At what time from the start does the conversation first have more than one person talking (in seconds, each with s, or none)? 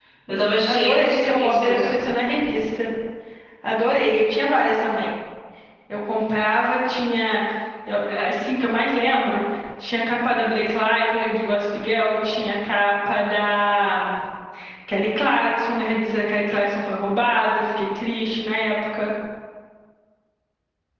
0.7 s